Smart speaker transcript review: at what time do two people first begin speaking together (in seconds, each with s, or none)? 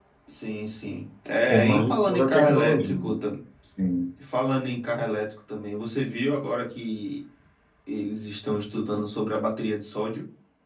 1.5 s